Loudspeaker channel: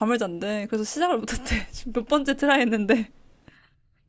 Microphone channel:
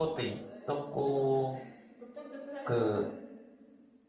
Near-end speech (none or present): present